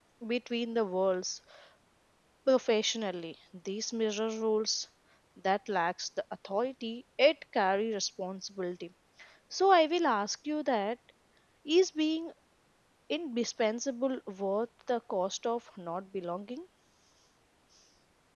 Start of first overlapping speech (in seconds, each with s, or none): none